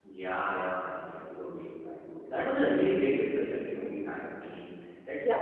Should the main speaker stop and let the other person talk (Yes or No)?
No